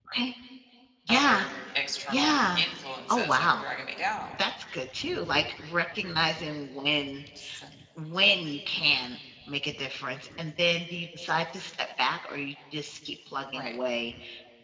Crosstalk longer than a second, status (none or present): none